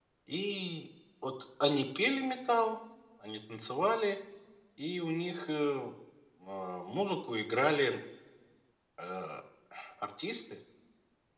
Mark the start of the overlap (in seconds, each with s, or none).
none